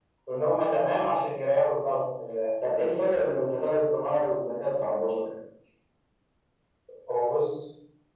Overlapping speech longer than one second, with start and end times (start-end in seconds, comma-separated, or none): none